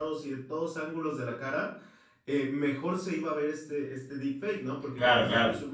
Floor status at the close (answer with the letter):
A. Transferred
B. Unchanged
B